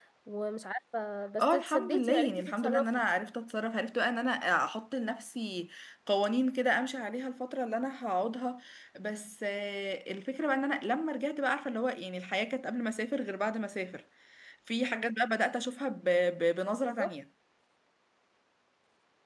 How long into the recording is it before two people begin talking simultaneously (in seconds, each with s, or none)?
1.4 s